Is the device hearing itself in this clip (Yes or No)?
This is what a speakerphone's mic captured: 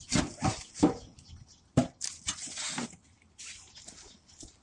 No